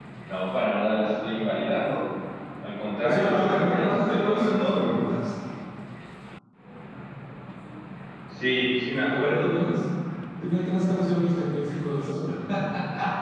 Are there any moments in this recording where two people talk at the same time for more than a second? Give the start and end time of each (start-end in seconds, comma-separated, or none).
3.0-4.8